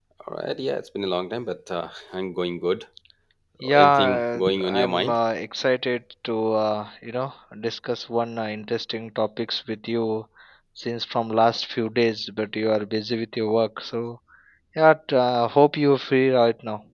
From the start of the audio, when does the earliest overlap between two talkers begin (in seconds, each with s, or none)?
3.8 s